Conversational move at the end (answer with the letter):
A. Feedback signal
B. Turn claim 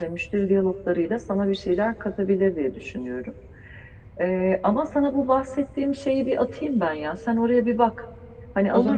B